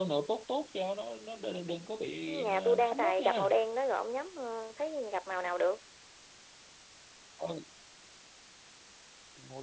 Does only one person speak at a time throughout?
No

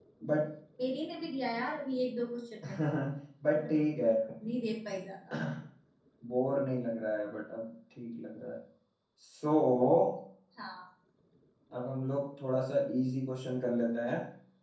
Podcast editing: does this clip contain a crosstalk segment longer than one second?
No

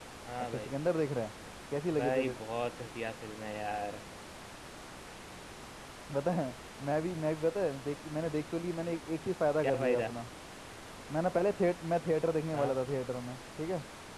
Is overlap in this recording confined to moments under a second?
Yes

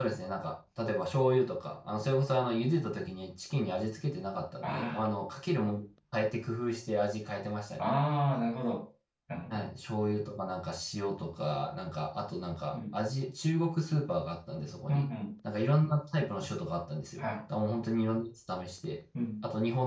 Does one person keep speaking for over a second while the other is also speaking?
No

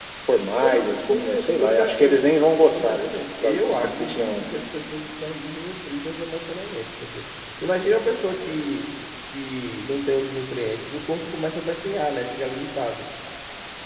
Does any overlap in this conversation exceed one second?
Yes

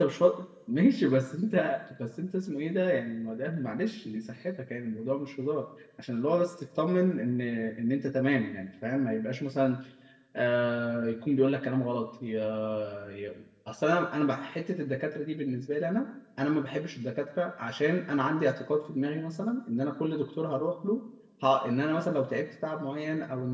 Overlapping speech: No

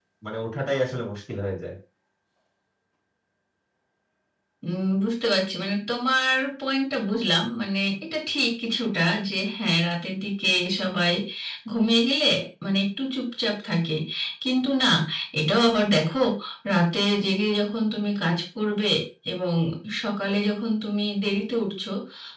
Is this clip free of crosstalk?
Yes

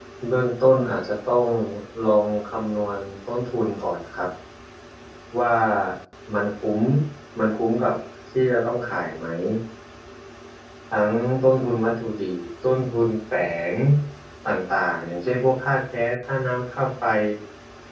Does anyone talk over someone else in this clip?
No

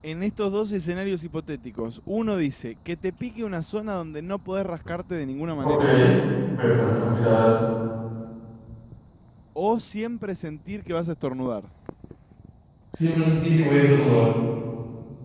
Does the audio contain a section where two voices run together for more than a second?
No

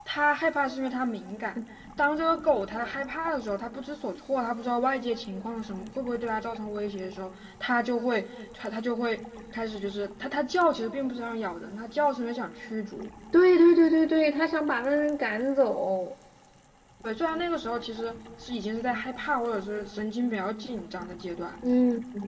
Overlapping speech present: No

